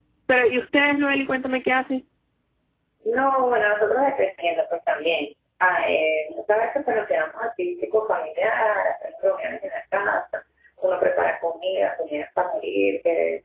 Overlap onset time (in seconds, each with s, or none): none